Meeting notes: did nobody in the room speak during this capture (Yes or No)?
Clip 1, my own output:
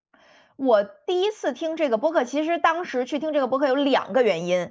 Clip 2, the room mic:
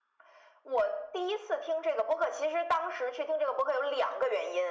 Yes